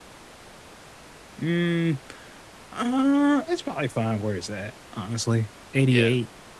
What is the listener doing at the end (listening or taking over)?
listening